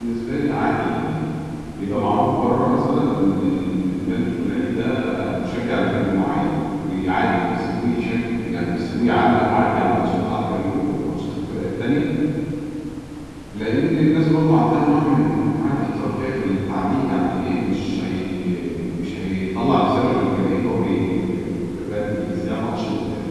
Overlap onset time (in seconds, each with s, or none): none